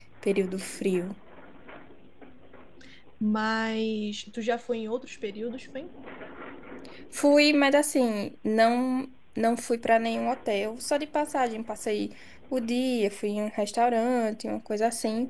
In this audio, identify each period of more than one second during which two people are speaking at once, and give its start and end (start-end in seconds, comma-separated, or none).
none